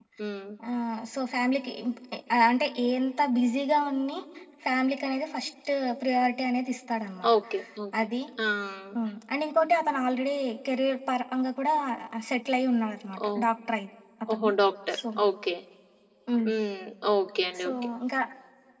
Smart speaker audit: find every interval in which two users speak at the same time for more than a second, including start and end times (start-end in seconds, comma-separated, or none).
none